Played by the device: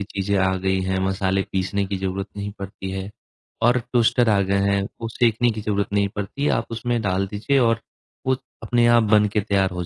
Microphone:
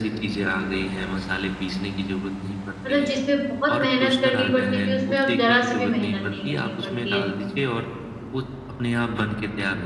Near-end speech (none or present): present